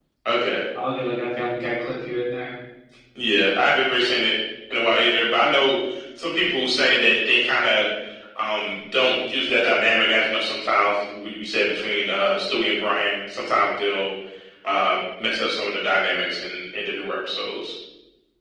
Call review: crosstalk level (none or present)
none